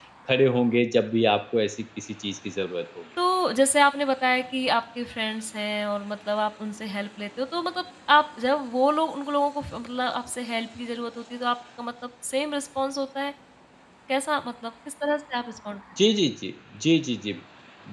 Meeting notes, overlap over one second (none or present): none